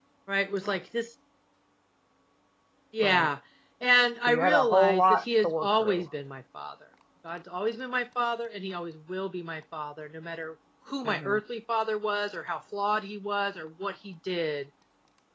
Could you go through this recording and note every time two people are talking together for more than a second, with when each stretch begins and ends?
4.2-6.0

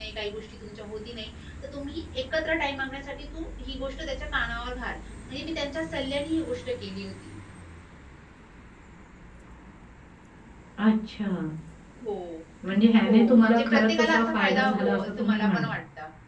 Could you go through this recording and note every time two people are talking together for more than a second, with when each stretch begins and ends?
13.0-15.7

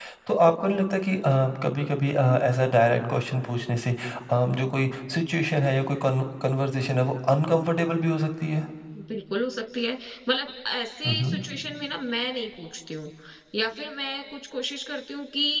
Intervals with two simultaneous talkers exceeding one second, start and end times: none

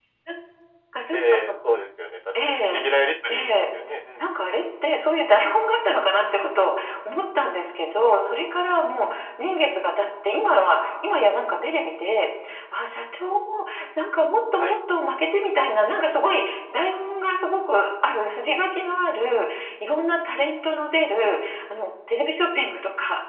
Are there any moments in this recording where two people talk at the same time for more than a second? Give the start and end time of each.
none

